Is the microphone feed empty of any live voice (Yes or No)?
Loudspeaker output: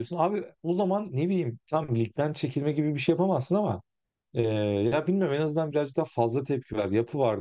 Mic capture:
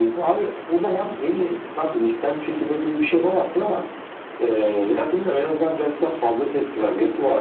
Yes